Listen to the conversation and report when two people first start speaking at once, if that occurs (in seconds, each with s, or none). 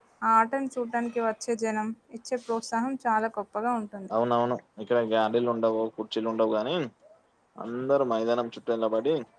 none